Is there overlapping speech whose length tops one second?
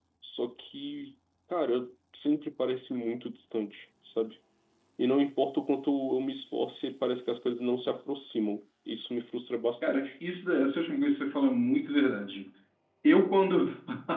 No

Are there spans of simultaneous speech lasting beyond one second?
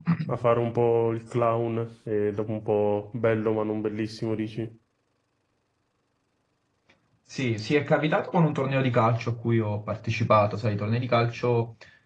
No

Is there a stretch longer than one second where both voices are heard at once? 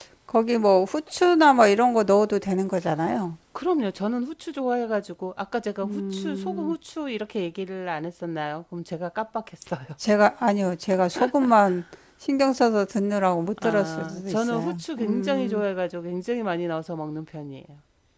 Yes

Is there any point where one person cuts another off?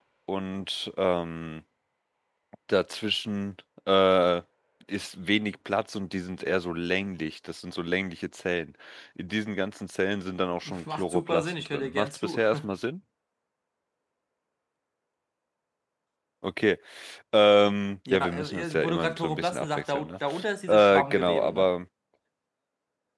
Yes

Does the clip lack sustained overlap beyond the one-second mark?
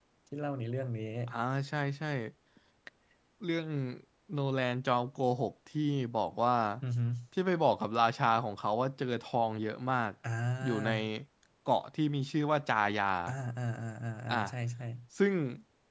Yes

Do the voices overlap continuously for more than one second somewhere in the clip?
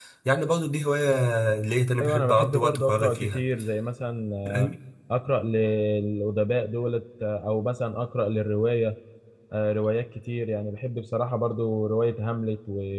Yes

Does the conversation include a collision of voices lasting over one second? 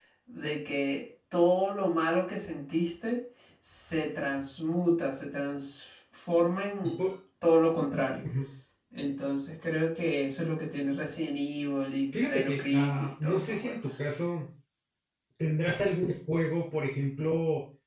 Yes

